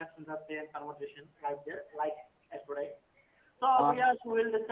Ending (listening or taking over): listening